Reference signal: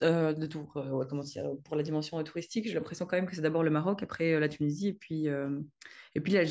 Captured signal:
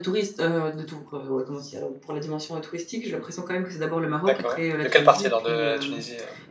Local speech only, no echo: d'accord. De quelle partie alors de la Tunisie? euh

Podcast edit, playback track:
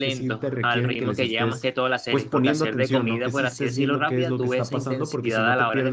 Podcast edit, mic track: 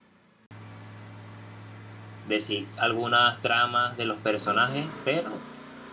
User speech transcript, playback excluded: de sí algunas tramas de los personajes, pero

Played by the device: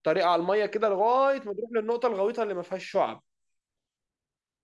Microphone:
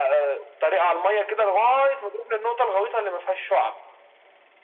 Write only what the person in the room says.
none

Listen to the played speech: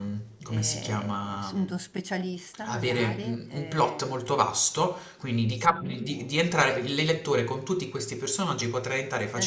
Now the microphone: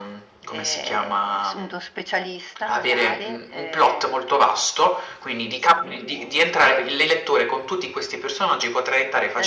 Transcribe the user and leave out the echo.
none

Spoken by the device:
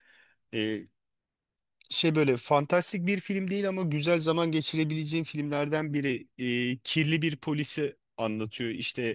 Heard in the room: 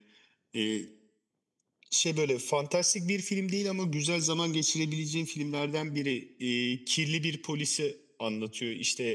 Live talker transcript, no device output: none

